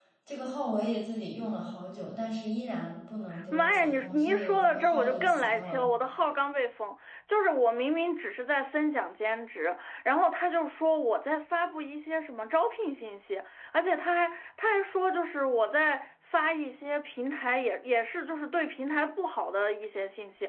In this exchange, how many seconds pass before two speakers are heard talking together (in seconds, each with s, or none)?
3.5 s